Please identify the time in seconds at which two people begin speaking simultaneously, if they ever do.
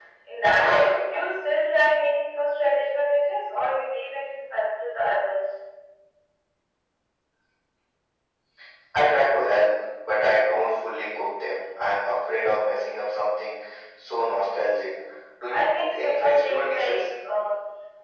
15.5 s

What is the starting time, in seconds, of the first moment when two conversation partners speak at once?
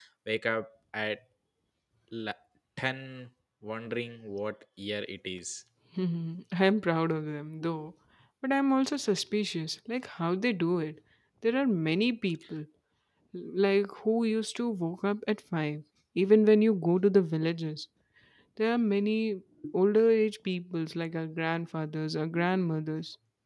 none

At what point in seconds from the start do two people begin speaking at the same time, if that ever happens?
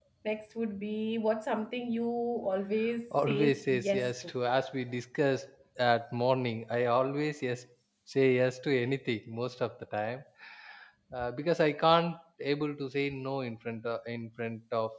3.1 s

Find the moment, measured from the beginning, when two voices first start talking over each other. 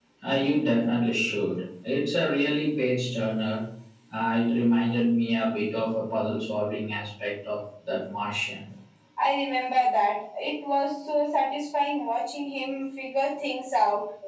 none

